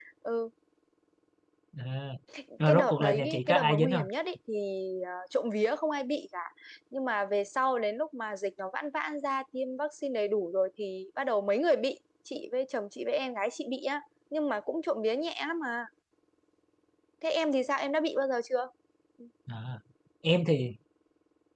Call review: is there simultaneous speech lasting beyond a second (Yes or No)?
Yes